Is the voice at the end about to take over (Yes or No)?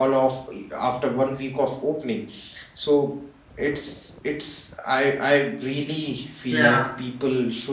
No